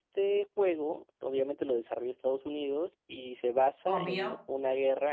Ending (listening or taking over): listening